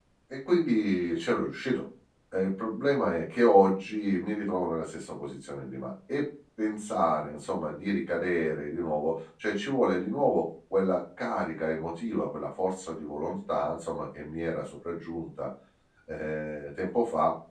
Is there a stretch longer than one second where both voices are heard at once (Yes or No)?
No